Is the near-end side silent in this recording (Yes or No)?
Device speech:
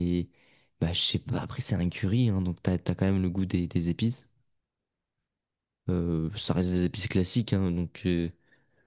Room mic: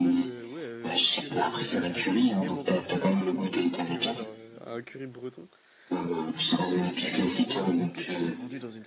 No